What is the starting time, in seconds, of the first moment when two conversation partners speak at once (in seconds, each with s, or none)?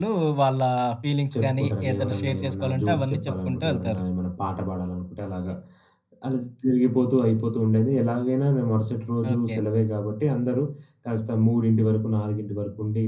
1.4 s